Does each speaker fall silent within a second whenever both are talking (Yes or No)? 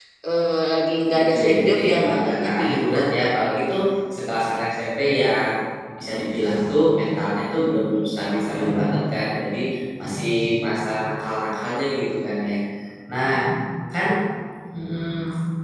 No